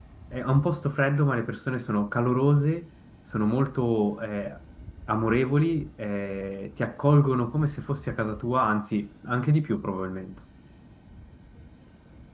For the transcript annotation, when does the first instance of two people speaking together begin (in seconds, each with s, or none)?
none